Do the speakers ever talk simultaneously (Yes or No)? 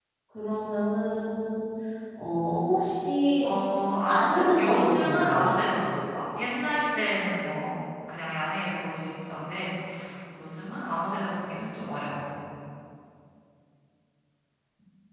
Yes